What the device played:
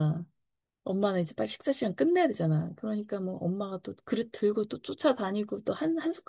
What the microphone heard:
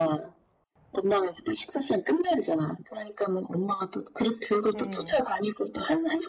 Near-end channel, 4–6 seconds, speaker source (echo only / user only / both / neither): both